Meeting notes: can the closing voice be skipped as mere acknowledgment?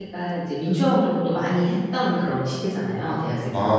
No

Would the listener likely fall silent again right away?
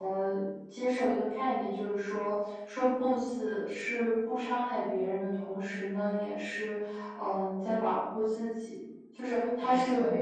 No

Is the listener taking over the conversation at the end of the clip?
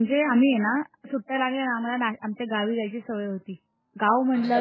No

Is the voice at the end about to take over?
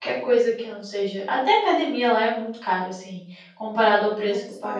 Yes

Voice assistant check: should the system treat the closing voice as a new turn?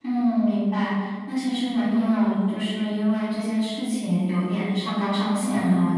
No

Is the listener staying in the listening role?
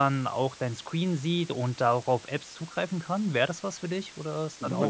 No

